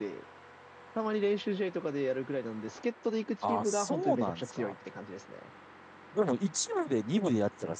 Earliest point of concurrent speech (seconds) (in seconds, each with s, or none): 3.4 s